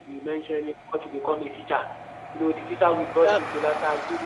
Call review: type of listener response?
listening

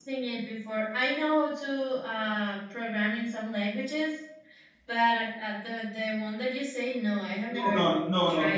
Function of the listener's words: taking over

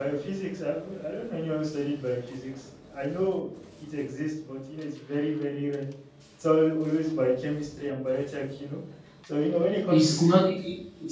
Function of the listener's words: taking over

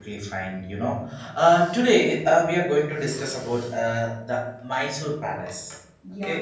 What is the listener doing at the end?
taking over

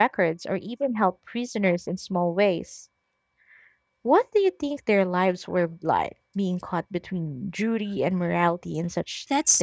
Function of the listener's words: taking over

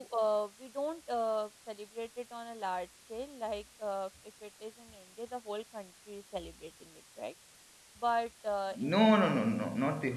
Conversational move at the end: taking over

